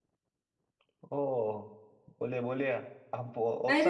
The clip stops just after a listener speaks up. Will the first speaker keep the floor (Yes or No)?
No